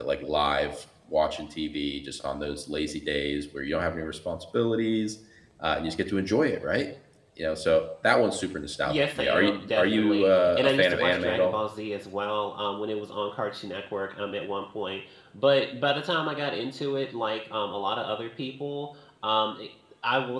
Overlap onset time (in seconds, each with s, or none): 8.9 s